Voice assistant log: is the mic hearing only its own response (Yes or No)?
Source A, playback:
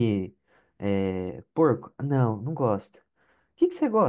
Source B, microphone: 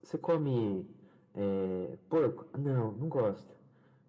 Yes